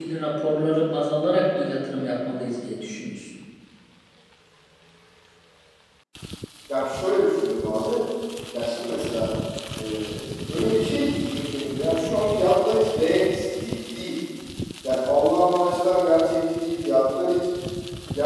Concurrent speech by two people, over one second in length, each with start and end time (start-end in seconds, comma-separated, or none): none